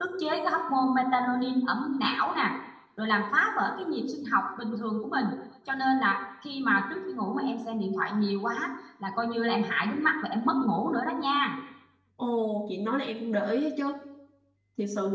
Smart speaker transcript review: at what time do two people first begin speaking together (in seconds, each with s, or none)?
none